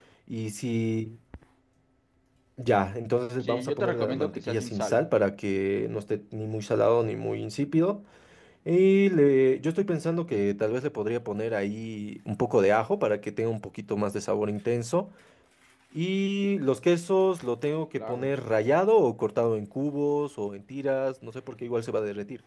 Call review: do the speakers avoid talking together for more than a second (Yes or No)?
No